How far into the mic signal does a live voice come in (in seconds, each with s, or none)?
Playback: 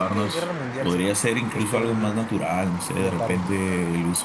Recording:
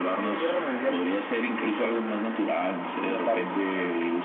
none